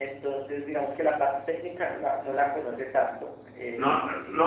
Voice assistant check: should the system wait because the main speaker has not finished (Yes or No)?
No